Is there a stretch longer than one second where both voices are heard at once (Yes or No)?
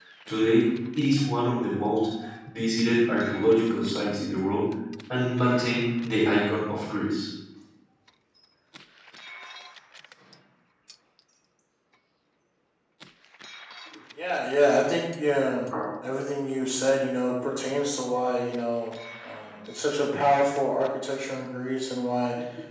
No